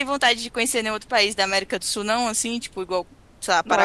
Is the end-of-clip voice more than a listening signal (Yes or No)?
Yes